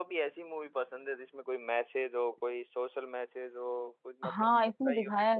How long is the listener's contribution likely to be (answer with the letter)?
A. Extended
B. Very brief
A